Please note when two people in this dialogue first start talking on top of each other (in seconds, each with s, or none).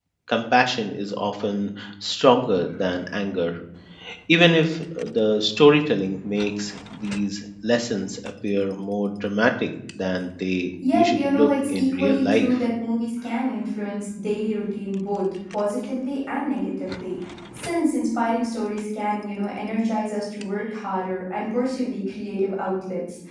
10.8 s